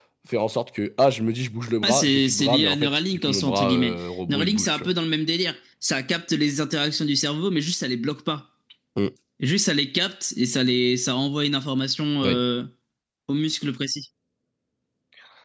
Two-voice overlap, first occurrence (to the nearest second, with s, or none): 2 s